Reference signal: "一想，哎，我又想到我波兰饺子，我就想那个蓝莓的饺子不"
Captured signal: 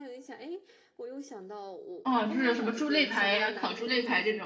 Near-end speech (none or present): present